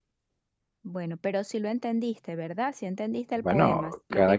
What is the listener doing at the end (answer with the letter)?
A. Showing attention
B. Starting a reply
B